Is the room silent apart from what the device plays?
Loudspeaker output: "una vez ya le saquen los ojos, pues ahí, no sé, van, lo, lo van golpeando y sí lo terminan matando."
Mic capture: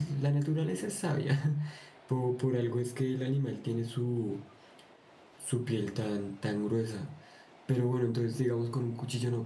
No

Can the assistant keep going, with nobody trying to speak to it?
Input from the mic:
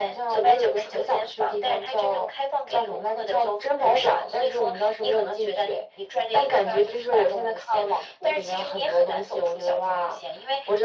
Yes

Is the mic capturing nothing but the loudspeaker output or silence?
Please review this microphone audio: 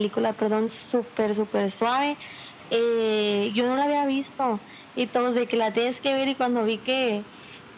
Yes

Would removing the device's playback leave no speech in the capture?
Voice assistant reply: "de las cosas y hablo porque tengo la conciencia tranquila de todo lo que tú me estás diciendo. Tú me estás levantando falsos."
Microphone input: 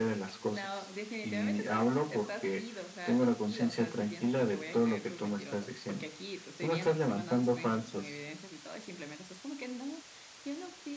No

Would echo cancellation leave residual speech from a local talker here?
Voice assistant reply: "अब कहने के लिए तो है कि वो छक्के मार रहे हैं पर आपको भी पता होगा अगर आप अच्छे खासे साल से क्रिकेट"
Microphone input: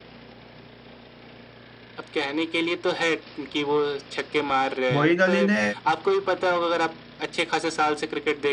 Yes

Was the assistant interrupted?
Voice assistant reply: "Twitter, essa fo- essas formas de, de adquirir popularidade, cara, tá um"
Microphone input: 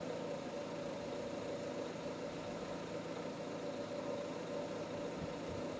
No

